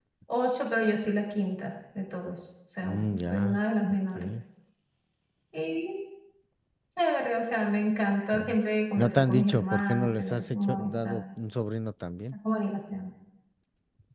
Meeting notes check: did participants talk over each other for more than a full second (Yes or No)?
Yes